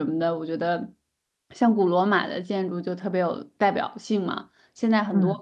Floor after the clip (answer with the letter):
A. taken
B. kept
B